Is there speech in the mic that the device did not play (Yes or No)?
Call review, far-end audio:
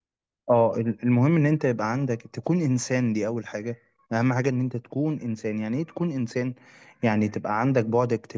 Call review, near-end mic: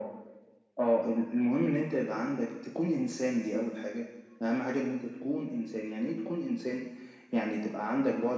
No